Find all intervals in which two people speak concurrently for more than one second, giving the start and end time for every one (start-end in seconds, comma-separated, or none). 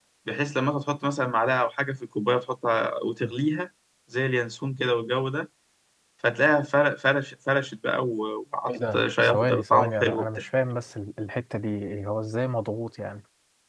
8.7-10.3